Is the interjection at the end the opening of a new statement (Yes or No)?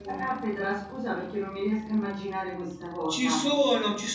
Yes